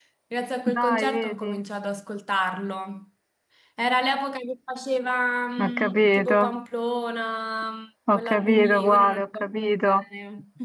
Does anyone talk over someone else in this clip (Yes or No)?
Yes